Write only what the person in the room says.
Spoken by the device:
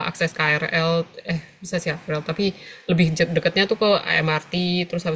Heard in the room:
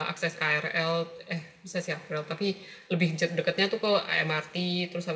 none

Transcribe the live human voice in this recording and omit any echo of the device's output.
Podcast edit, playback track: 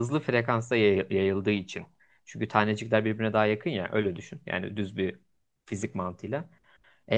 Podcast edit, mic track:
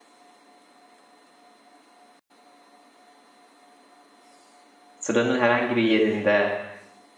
sıranın herhangi bir yerinde

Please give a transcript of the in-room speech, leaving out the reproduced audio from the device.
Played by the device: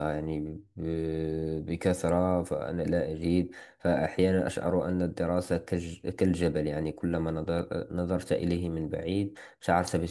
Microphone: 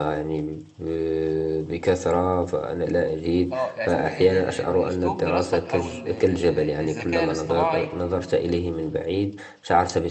اه أصل ال- ال- ال- اسلوب دراستك او ال- آه، الذكاء الاصطناعي

